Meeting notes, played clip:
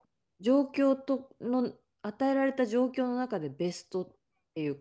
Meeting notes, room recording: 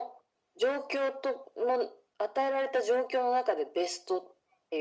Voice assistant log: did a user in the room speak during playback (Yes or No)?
No